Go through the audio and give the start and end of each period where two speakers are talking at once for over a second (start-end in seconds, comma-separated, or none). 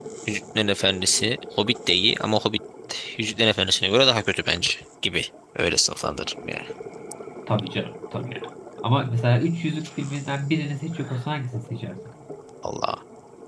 none